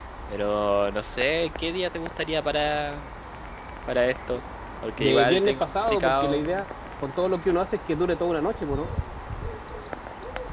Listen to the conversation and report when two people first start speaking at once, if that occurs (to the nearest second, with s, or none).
5 s